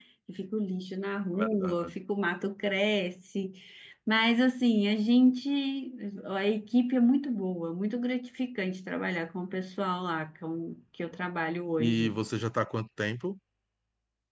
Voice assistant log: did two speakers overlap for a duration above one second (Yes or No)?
No